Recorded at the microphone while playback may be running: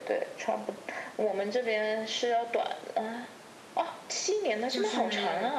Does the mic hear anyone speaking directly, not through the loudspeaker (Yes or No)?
Yes